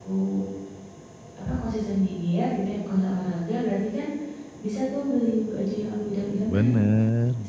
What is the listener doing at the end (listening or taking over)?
taking over